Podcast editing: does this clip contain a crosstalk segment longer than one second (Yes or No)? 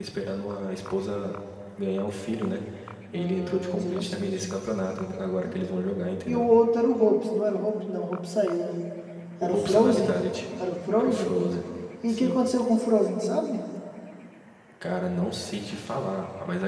Yes